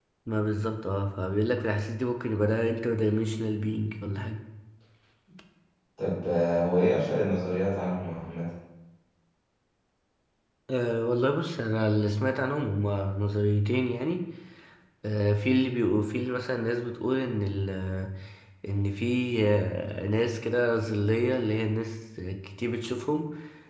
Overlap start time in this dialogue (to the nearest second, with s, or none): none